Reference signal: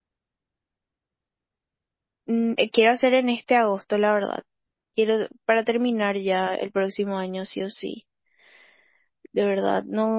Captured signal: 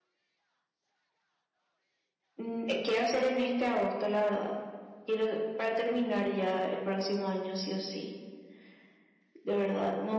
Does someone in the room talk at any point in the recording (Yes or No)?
No